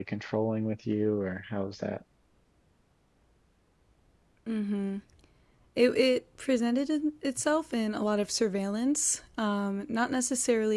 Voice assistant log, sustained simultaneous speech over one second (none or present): none